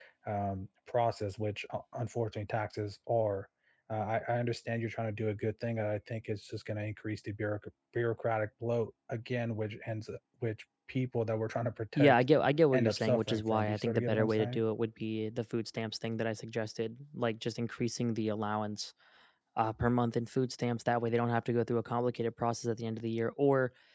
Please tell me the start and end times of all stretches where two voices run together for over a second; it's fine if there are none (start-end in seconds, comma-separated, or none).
12.7-14.6